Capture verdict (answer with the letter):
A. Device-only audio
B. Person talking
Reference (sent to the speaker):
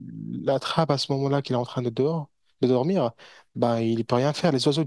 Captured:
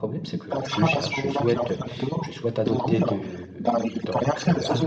B